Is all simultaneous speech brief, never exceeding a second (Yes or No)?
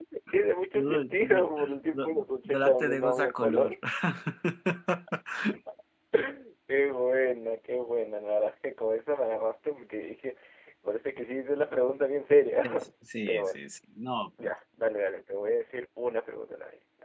No